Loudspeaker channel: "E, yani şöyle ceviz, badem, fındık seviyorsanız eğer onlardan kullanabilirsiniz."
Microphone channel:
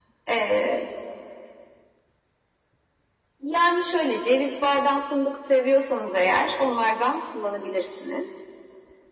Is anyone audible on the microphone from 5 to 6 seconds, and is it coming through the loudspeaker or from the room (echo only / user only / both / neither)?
echo only